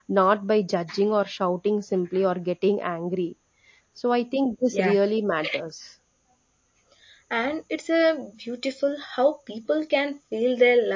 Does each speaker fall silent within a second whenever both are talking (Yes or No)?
Yes